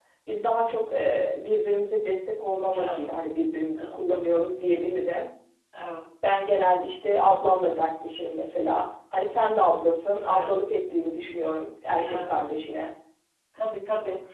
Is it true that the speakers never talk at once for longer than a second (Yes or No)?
Yes